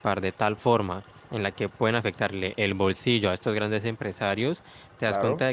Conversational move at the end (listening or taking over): listening